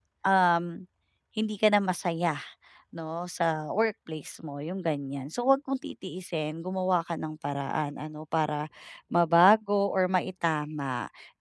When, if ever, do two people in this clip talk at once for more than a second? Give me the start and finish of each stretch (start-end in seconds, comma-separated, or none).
none